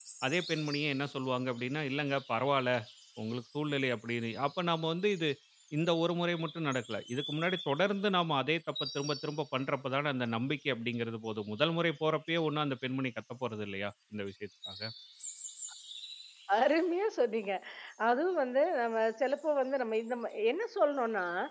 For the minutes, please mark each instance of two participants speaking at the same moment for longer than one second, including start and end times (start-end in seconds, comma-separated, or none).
none